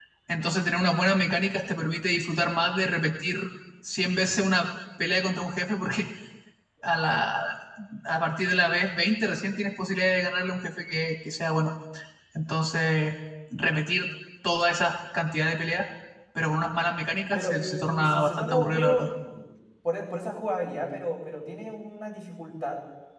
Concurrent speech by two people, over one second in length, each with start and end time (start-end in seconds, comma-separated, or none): 17.3-19.1